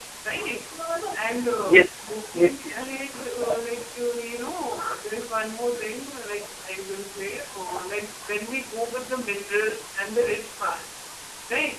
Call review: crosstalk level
present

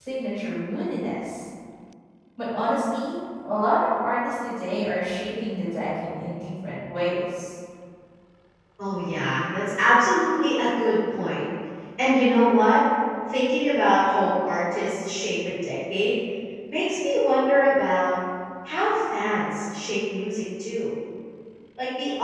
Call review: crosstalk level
none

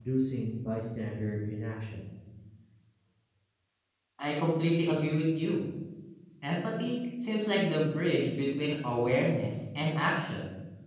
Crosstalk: none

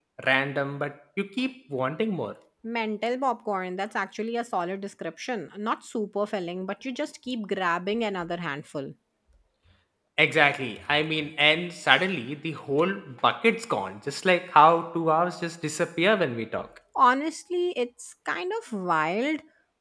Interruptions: none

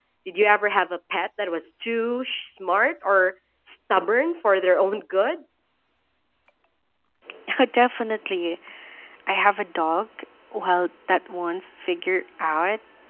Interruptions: none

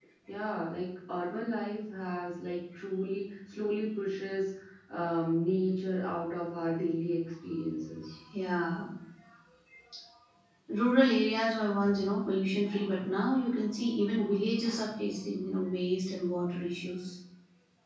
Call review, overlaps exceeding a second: none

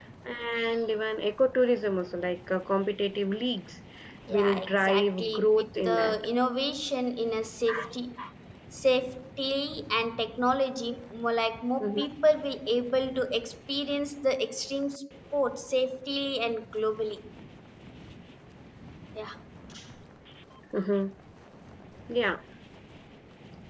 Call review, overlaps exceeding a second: present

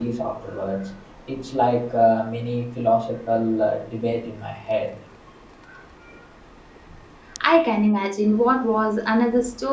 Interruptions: none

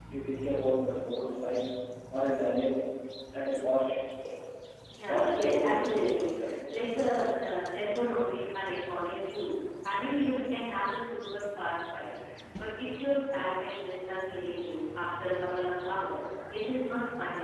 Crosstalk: present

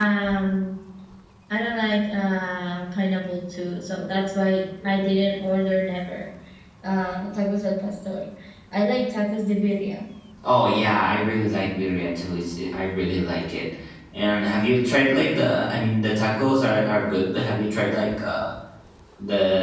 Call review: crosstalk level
none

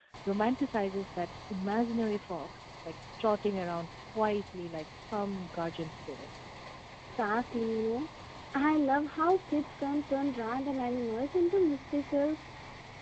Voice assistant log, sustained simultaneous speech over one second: none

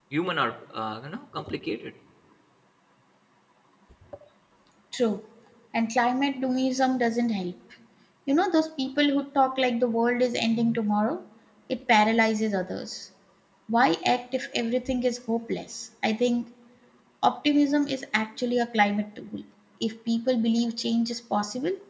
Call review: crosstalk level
none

